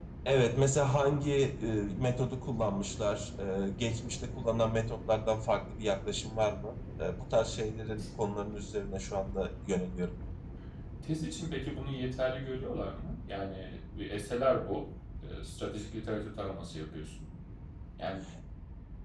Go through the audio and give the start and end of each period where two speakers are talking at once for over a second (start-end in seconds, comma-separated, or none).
none